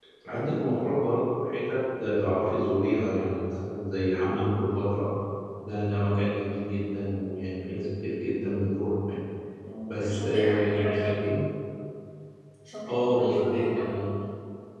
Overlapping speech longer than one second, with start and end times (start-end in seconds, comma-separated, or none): 9.9-11.4, 12.9-14.1